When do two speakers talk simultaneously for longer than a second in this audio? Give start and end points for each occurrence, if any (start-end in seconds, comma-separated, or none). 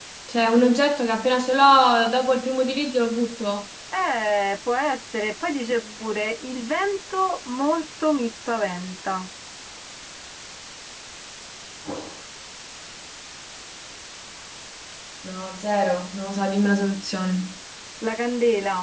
none